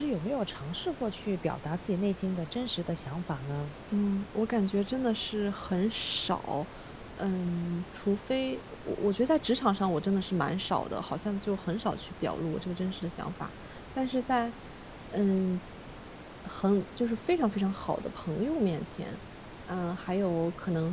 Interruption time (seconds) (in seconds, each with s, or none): none